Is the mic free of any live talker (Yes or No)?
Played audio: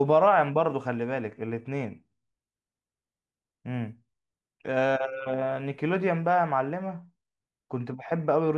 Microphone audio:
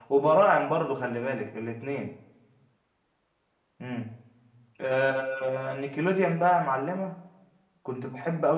Yes